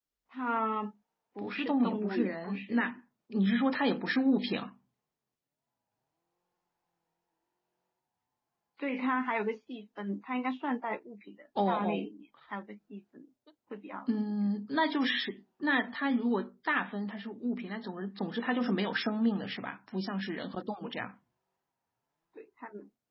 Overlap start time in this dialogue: 1.4 s

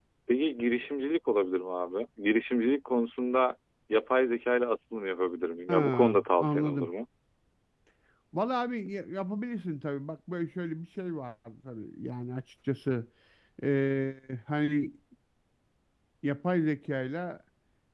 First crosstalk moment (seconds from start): 5.7 s

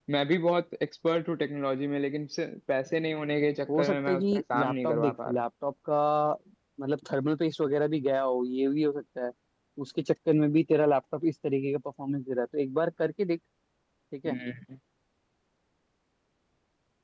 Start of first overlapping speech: 3.7 s

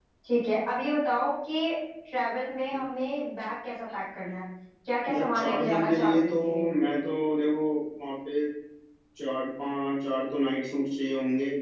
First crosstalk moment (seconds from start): 5.1 s

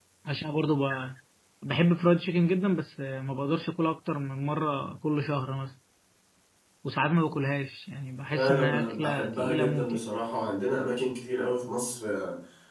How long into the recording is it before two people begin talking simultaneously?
8.3 s

